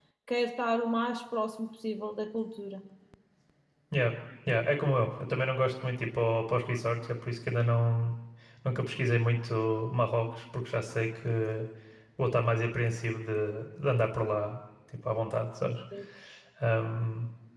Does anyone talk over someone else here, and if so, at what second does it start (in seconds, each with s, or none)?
none